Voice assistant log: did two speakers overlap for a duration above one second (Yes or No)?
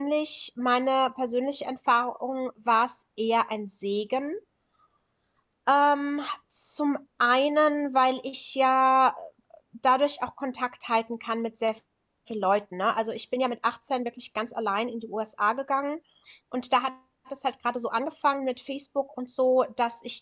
No